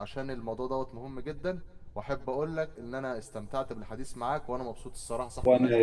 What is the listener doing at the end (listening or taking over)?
taking over